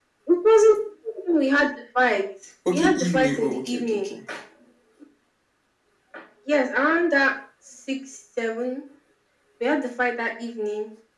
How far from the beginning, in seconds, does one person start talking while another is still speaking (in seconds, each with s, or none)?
2.6 s